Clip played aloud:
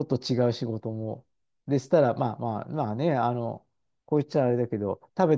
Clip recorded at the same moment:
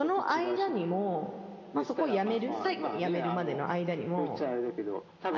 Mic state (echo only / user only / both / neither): both